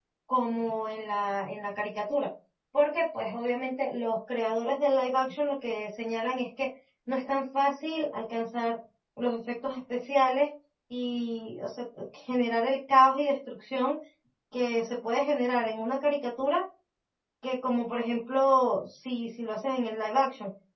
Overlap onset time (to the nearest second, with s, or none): none